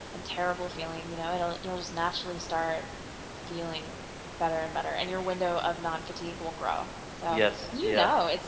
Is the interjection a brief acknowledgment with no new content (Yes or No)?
Yes